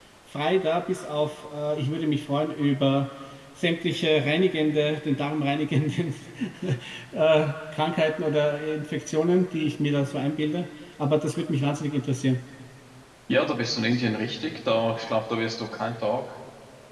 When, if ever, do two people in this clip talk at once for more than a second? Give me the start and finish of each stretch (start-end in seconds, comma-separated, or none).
none